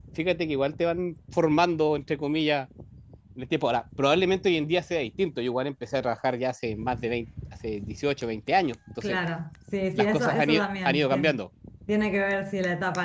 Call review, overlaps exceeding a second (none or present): present